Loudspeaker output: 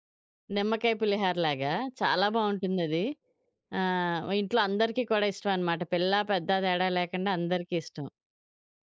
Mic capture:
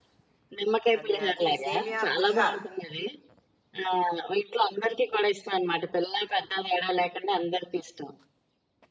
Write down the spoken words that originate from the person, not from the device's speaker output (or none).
అంటే అంటే సేమియా పులిహార.